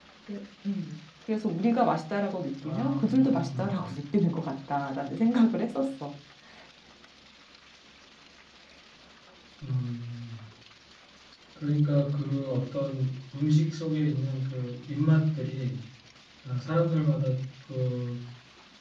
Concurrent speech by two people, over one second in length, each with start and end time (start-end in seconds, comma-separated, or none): 2.6-3.9